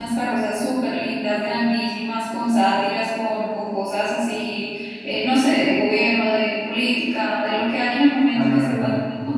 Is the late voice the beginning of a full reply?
No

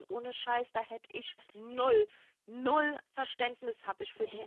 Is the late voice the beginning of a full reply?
Yes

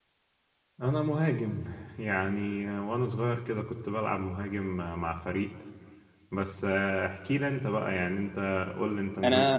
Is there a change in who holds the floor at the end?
Yes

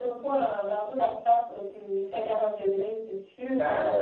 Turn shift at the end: Yes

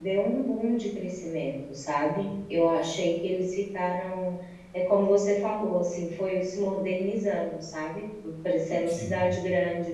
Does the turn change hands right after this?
No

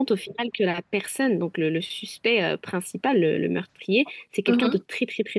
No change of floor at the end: Yes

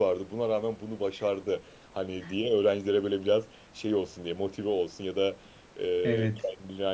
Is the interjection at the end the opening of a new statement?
No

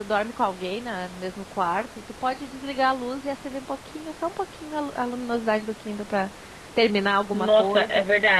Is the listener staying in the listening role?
No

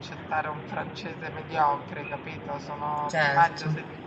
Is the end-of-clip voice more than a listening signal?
No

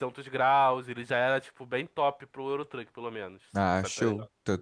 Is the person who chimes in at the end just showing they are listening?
No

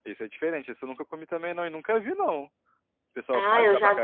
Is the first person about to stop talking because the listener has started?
Yes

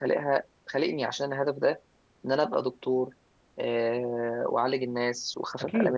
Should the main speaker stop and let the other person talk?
No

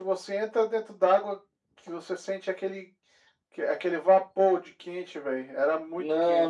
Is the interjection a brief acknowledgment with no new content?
No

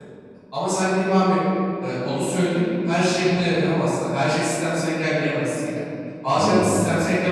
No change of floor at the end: Yes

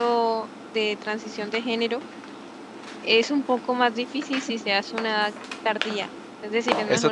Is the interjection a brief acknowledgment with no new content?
No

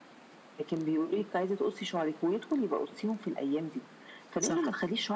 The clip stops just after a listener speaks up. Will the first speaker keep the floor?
Yes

